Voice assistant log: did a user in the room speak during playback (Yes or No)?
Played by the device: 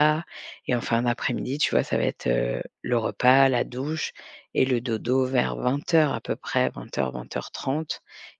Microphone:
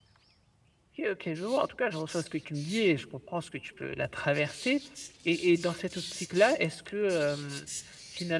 Yes